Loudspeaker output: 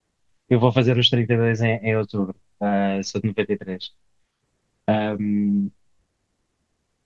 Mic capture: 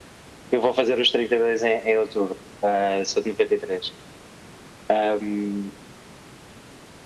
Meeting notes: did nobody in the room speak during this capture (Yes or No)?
Yes